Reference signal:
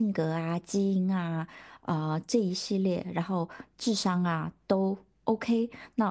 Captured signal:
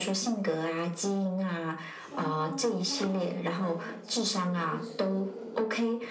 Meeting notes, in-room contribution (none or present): present